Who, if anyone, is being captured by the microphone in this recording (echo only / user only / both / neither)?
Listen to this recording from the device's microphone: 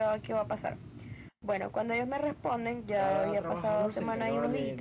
both